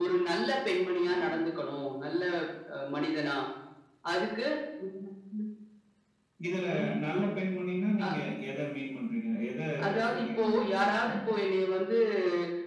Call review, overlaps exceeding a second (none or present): present